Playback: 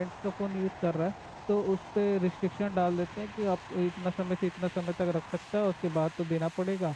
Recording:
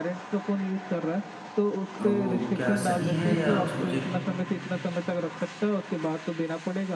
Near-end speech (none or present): present